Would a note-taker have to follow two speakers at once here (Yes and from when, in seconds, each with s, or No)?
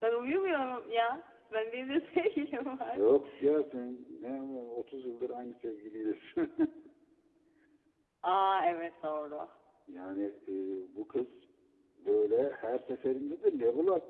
No